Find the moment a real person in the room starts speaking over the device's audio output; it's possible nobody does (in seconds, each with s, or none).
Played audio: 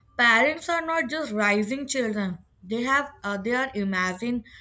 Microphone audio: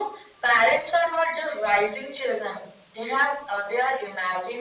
none